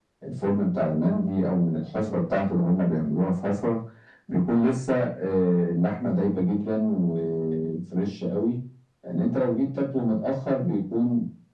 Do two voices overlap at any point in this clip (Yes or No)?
No